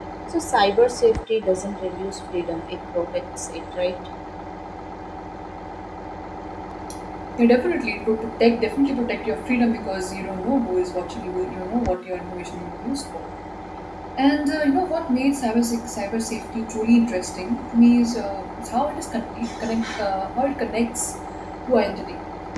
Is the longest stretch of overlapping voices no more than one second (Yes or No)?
Yes